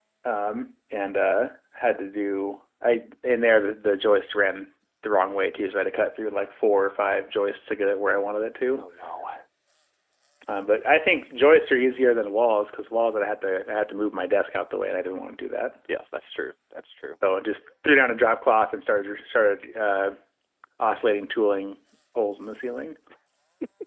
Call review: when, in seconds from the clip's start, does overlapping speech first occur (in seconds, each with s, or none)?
none